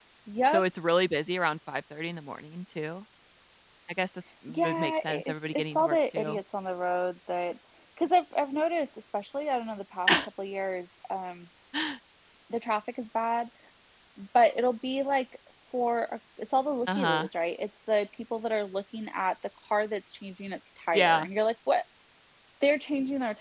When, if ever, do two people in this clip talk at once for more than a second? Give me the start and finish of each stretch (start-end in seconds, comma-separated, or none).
4.5-6.4